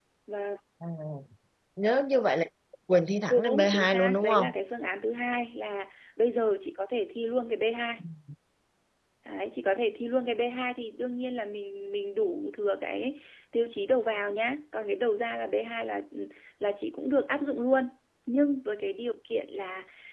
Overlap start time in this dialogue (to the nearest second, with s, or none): 3 s